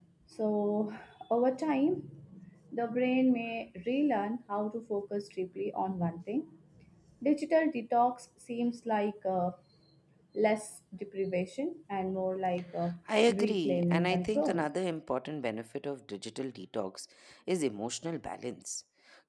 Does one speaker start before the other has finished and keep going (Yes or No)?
Yes